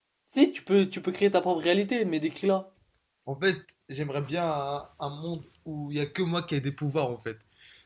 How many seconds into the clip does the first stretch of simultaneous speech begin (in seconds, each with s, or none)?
none